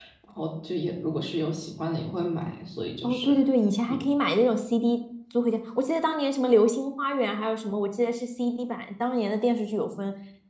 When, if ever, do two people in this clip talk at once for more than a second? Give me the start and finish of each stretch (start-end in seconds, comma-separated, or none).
none